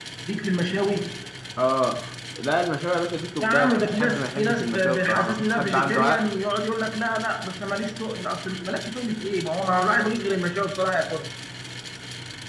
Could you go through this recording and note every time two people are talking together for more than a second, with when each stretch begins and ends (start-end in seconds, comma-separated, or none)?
3.4-6.3